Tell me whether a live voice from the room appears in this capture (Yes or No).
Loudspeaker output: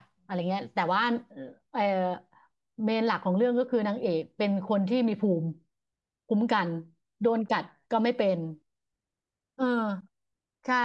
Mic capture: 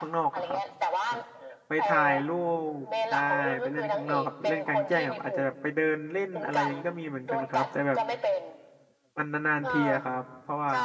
Yes